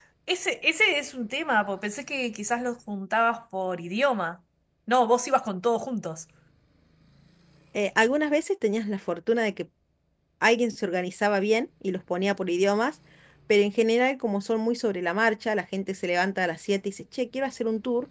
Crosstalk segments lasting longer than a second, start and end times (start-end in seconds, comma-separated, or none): none